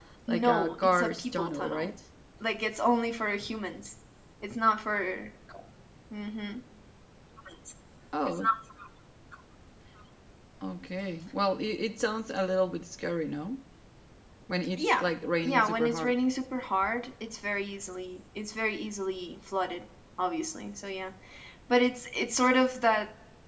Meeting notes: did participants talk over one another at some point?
Yes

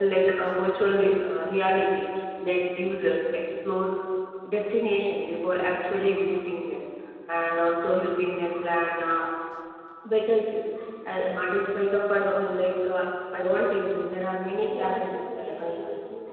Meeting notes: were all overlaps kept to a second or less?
No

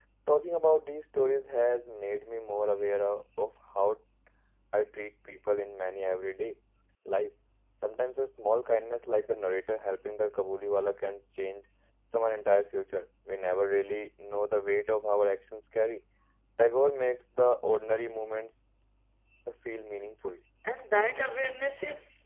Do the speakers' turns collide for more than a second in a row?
No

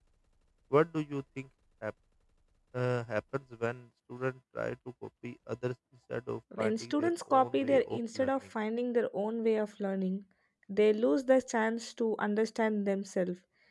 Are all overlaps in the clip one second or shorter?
No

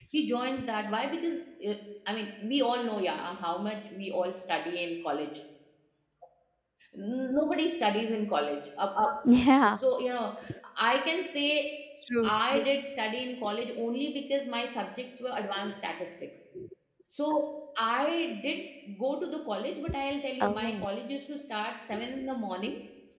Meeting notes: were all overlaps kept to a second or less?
Yes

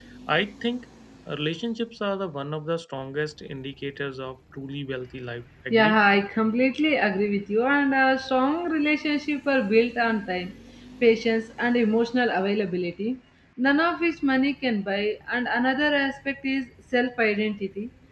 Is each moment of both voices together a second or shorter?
Yes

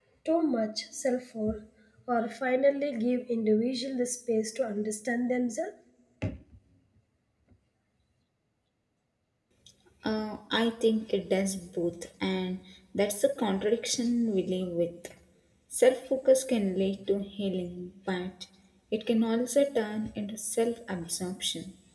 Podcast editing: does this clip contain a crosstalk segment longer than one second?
No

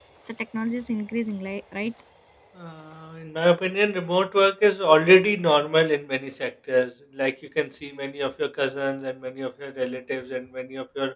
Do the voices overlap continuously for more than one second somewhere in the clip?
No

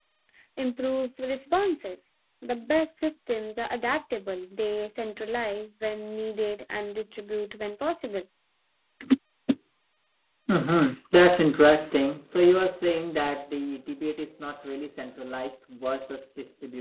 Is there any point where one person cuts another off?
No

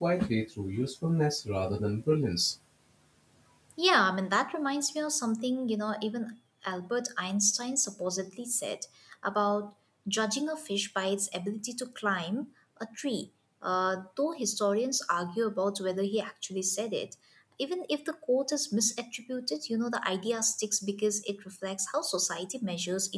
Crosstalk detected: No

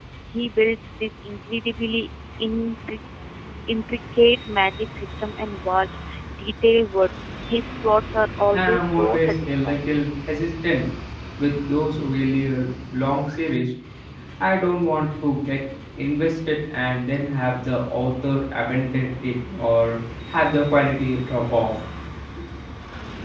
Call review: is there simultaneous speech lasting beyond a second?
Yes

